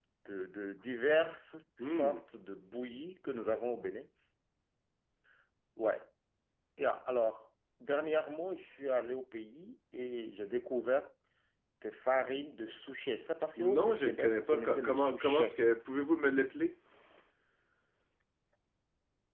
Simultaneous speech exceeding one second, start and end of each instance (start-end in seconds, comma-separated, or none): 13.6-15.6